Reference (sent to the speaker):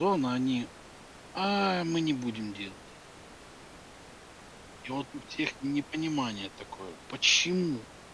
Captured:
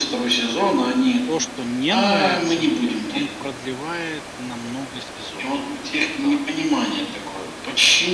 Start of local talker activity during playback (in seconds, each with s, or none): 1.2 s